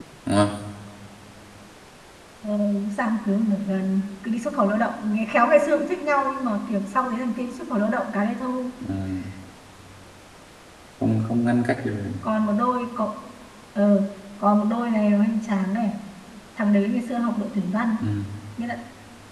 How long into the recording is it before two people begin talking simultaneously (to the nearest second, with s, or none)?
none